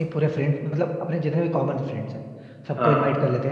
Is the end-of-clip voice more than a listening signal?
No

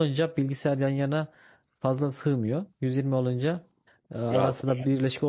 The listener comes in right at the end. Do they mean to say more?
No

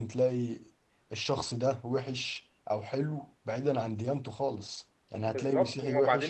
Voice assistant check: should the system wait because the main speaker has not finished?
No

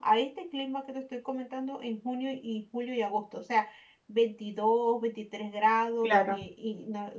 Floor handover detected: No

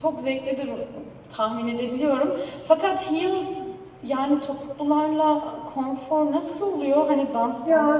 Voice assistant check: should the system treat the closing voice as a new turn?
Yes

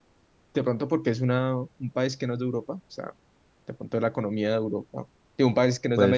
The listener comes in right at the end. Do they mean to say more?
No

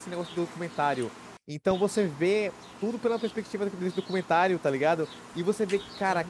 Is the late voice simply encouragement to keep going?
Yes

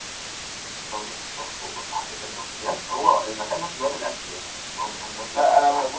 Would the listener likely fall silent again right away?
No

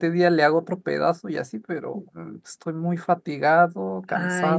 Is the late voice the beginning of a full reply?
Yes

